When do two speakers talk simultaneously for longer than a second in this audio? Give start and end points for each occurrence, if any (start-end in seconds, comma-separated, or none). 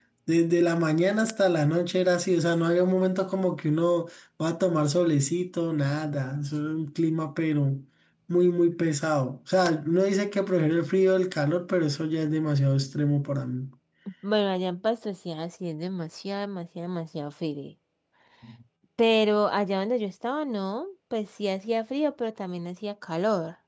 none